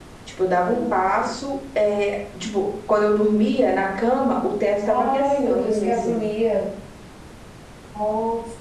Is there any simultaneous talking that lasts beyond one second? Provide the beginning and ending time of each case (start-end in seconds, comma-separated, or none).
4.8-6.1